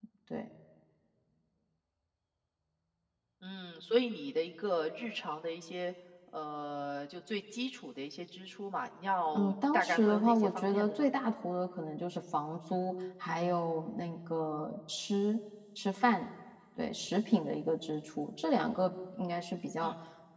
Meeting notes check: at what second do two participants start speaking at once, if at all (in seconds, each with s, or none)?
9.3 s